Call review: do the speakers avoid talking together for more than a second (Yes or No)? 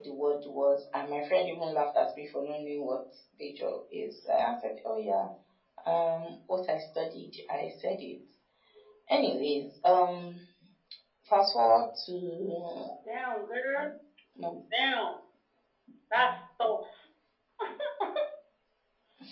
Yes